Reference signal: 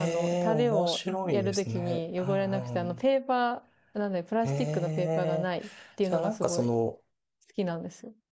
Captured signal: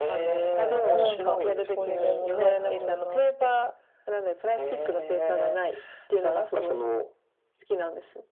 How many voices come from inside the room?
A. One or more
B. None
A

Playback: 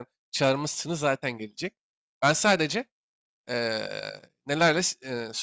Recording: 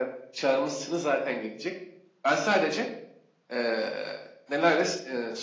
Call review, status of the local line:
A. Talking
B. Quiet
B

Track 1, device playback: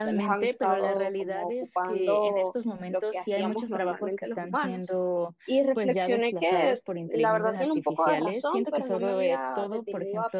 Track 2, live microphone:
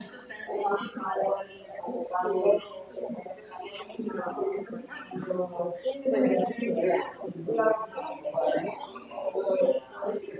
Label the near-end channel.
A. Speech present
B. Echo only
B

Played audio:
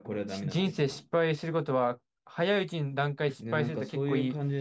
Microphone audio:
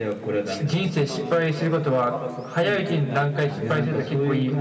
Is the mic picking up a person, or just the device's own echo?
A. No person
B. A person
B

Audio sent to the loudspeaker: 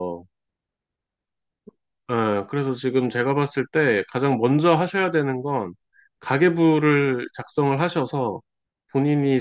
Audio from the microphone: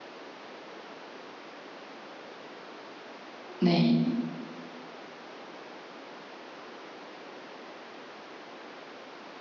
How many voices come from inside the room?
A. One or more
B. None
A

